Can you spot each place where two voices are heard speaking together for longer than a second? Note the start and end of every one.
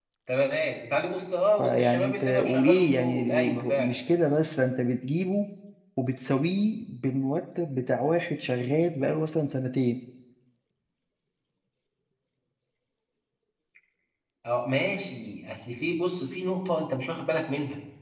1.6-4.0

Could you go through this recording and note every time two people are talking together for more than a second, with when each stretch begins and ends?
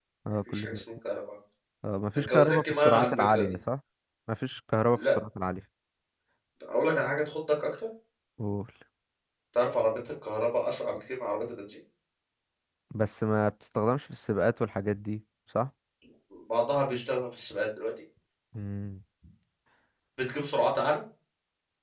2.3-3.5

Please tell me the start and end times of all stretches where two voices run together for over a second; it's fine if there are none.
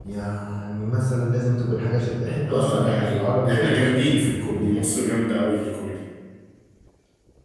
2.5-4.8

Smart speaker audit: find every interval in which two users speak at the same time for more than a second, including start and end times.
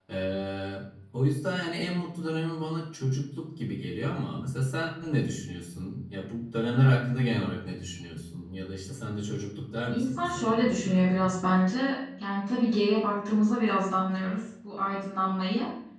9.9-11.2

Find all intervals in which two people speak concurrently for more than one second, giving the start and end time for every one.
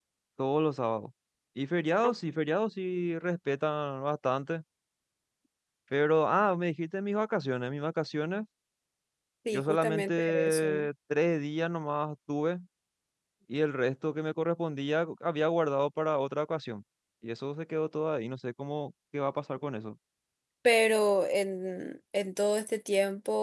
9.5-10.8

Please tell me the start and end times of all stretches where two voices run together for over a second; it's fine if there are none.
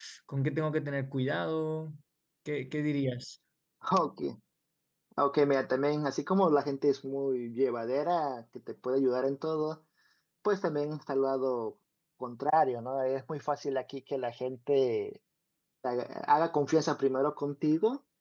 none

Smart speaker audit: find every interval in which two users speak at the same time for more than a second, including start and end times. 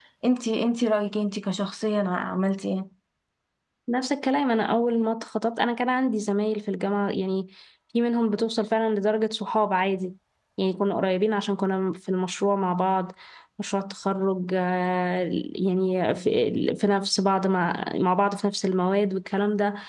none

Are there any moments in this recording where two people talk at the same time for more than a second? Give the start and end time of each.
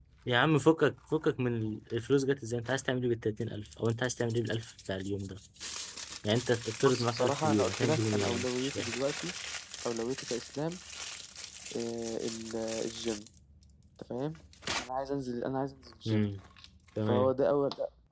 6.8-8.9

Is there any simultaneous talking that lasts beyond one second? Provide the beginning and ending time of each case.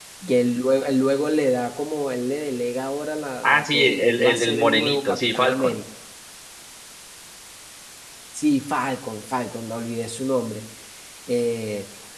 3.4-5.8

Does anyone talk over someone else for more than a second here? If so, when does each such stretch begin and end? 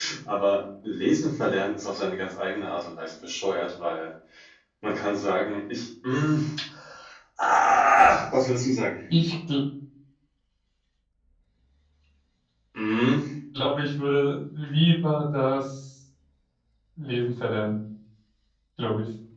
none

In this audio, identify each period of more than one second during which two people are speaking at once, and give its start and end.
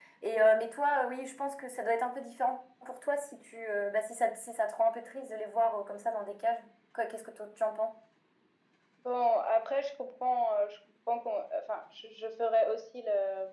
none

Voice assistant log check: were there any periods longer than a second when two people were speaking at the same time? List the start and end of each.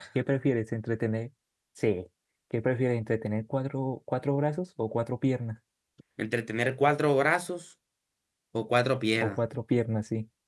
none

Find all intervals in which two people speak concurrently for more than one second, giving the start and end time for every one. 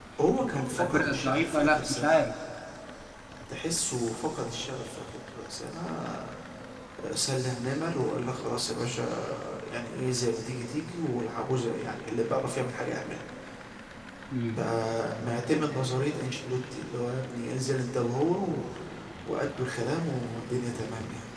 0.8-2.2

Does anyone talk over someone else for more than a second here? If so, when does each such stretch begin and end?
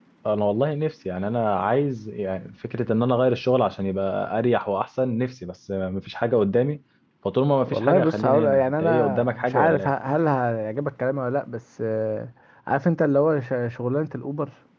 7.7-9.9

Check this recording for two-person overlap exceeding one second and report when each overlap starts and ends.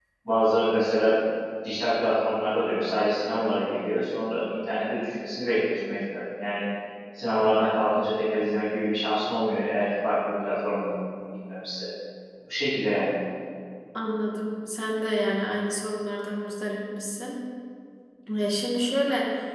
none

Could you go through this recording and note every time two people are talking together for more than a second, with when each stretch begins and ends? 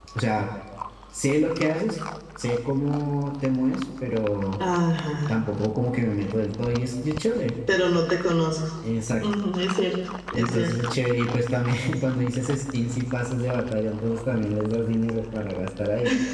none

